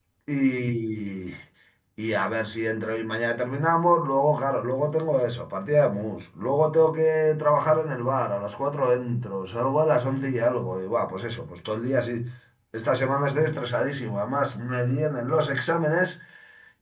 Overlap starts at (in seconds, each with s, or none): none